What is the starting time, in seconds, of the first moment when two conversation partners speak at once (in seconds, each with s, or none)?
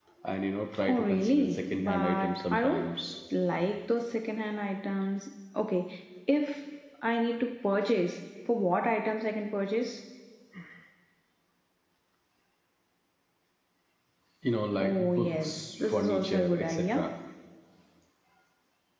0.9 s